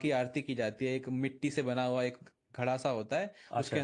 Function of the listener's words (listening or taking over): listening